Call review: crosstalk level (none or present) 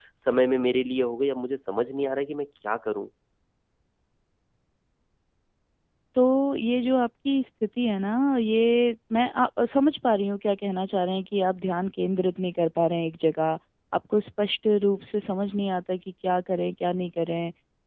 none